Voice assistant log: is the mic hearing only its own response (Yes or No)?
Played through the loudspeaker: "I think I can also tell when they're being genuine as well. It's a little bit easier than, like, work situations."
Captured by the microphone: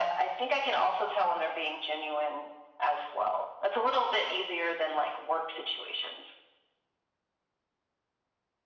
Yes